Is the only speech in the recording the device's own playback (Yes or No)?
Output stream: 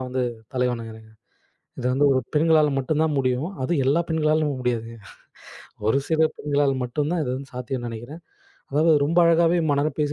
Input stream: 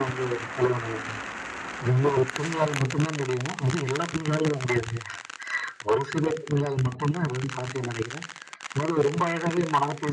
Yes